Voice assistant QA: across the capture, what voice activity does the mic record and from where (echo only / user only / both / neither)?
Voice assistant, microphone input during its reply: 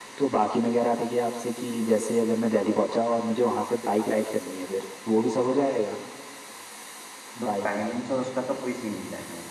both